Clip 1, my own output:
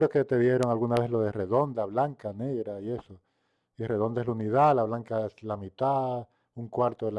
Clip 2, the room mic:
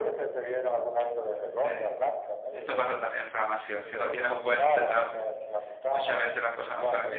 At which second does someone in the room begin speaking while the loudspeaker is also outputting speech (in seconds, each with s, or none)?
1.6 s